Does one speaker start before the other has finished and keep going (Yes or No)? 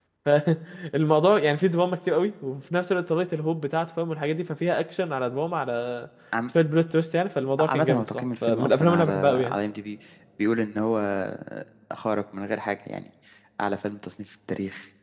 Yes